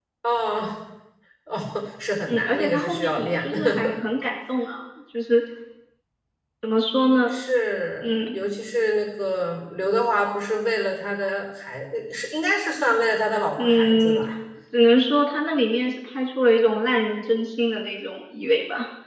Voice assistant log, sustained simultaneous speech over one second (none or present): present